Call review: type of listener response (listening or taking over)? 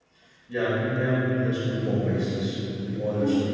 taking over